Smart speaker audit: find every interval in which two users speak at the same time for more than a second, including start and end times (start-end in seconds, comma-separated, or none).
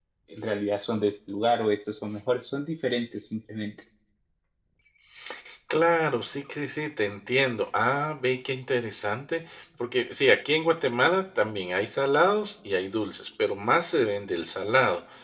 none